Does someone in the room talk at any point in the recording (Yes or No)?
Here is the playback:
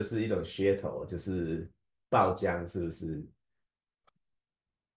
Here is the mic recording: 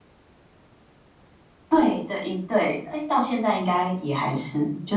Yes